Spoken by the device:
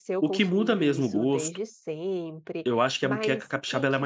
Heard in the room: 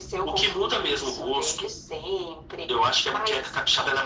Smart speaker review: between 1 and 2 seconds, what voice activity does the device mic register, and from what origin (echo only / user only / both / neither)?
echo only